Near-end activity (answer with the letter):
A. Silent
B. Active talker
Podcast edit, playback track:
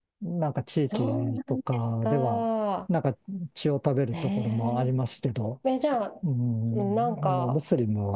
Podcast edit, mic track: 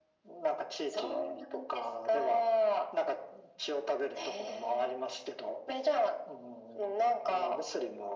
A